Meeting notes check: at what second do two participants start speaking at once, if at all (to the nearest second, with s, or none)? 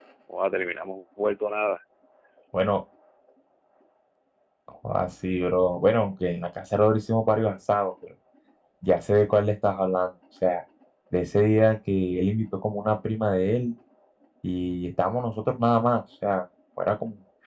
none